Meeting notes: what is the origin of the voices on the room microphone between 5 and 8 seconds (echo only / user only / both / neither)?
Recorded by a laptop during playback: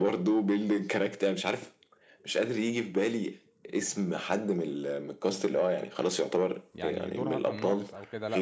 both